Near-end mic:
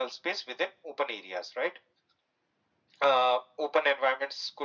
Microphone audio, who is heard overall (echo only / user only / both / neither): echo only